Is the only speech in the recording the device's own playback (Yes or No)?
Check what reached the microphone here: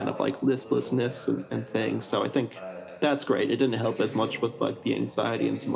No